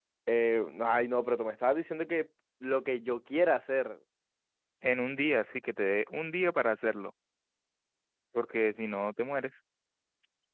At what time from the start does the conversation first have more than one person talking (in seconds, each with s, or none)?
none